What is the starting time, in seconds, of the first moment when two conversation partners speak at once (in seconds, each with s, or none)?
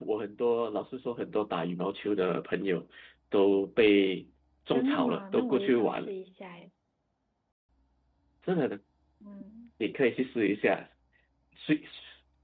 4.7 s